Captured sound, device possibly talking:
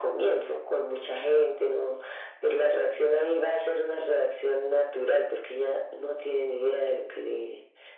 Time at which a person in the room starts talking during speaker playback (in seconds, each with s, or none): none